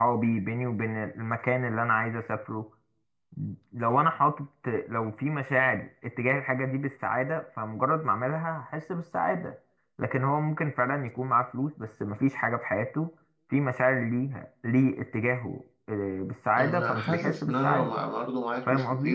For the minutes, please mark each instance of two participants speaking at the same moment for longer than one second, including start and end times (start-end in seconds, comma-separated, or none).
16.6-17.9